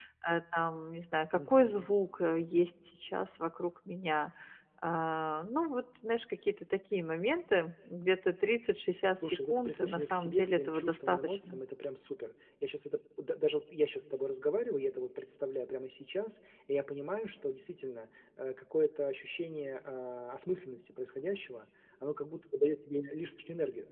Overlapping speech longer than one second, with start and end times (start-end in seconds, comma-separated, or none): 9.2-11.6